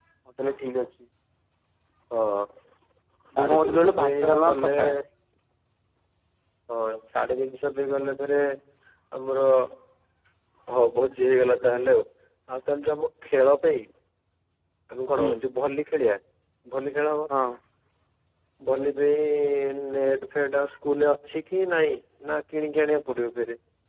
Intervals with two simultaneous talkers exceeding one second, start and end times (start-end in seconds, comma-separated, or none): 3.4-4.8